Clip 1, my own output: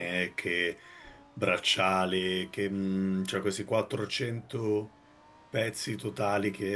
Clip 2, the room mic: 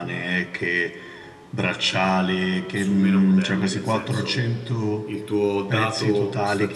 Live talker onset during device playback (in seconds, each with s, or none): 2.7 s